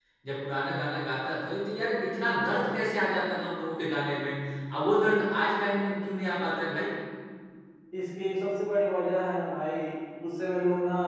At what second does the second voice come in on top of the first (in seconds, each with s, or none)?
none